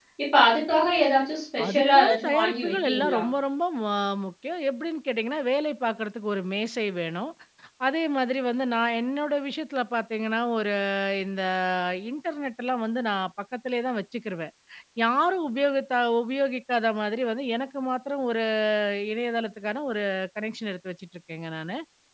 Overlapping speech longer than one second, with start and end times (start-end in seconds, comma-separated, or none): 1.7-3.2